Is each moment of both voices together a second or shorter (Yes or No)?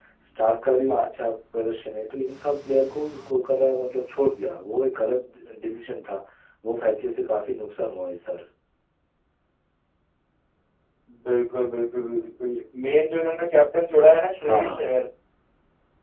Yes